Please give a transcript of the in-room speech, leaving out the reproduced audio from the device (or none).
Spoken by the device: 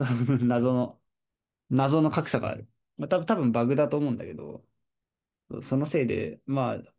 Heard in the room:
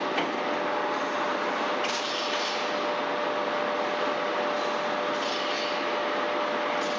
none